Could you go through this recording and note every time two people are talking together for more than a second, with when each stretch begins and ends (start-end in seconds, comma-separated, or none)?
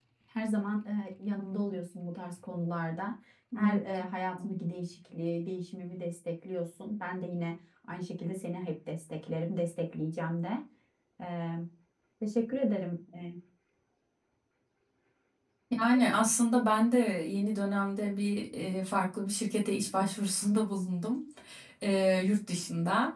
none